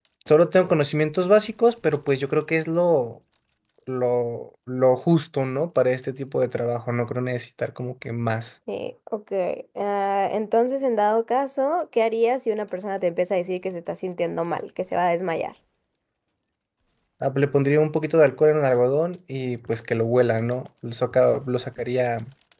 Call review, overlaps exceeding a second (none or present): none